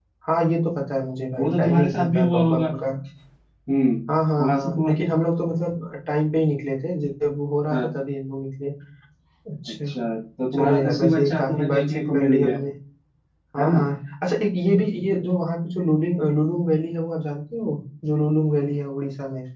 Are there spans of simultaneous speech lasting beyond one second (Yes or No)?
Yes